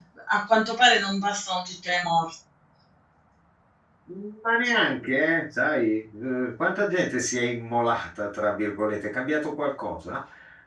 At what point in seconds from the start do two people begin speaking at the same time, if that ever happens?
none

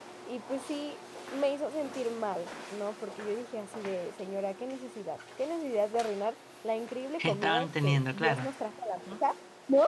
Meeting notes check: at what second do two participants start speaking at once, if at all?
7.2 s

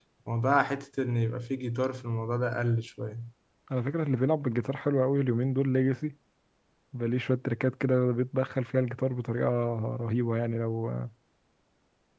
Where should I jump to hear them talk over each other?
none

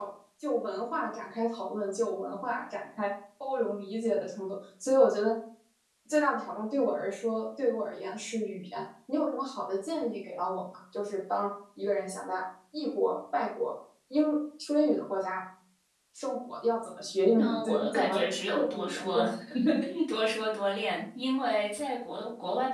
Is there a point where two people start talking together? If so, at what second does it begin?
17.4 s

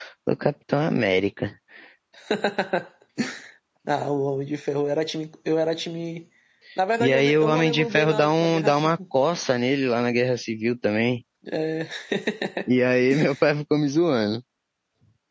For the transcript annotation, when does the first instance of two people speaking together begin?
7.0 s

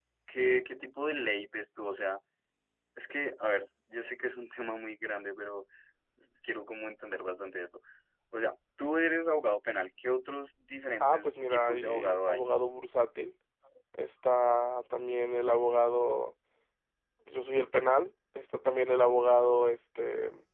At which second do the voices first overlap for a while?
11.0 s

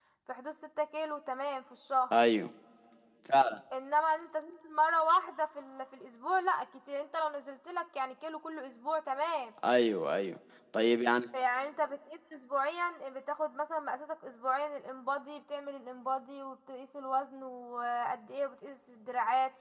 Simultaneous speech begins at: none

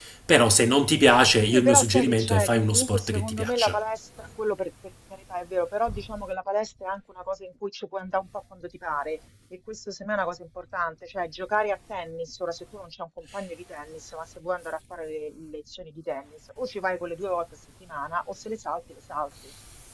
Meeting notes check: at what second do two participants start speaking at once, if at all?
1.5 s

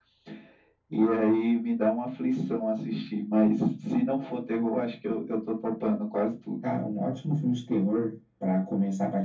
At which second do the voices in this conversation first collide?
none

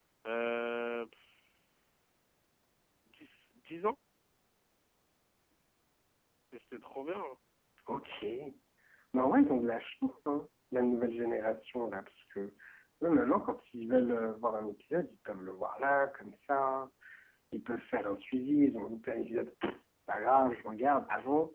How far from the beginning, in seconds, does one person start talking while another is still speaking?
none

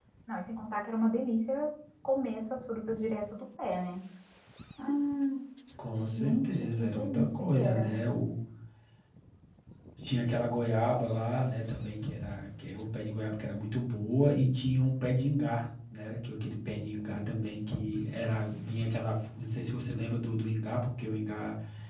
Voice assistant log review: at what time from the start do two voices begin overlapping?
6.0 s

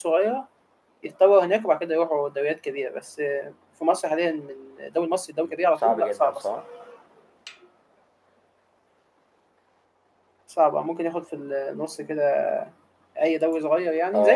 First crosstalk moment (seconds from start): 5.4 s

